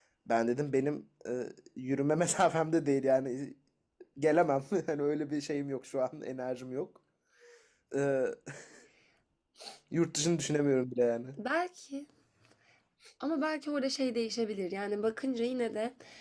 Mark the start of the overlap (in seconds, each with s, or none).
none